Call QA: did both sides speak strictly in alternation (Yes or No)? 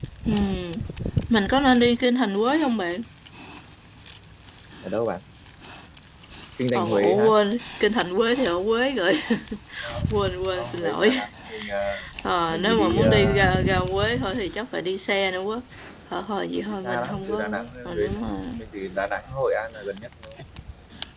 No